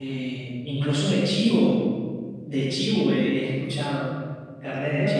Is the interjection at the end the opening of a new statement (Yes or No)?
Yes